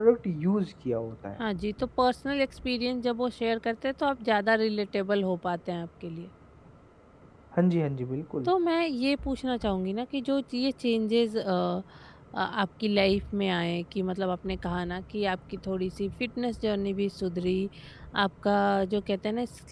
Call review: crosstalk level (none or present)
none